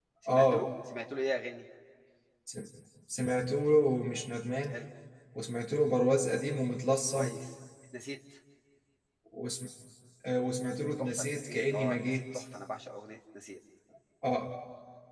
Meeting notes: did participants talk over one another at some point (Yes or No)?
Yes